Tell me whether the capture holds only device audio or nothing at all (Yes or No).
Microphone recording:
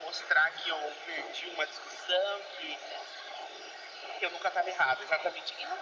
Yes